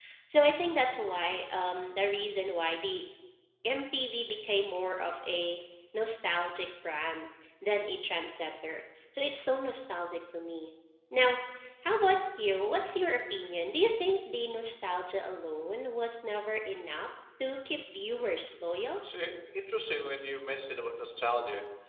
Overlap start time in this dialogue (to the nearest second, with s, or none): none